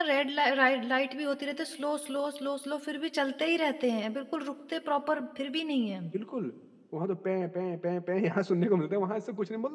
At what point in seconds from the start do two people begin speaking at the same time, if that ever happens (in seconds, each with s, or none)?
none